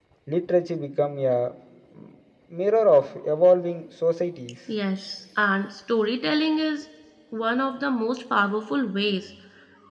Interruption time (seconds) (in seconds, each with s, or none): none